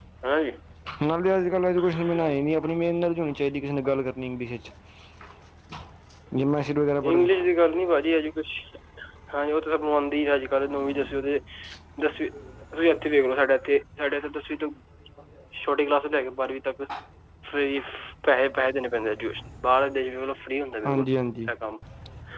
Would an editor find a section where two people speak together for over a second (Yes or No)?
No